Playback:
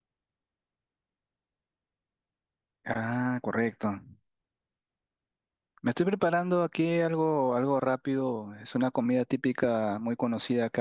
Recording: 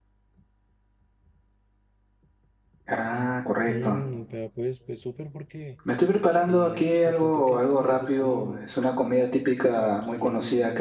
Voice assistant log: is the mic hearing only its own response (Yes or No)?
No